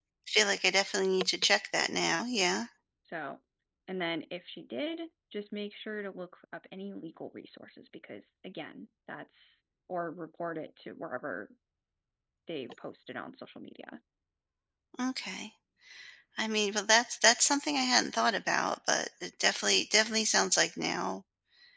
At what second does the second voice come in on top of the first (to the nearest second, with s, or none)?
none